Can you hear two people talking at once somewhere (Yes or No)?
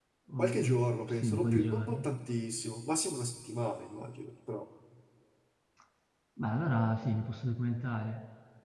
Yes